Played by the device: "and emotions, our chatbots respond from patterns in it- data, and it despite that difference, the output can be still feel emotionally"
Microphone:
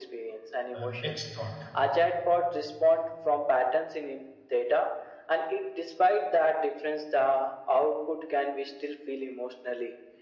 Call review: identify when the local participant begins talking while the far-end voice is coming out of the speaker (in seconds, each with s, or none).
0.7 s